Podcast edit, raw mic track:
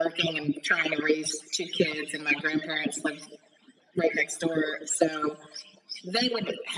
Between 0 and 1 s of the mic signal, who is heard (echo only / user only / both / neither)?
echo only